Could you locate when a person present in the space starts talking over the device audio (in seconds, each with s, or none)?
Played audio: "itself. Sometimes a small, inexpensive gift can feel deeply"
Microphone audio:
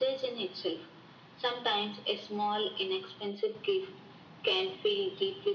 none